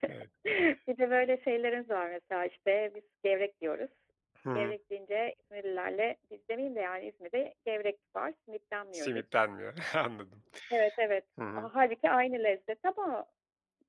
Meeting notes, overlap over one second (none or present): none